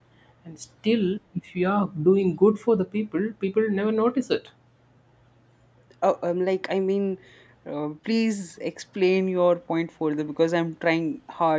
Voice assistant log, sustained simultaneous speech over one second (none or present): none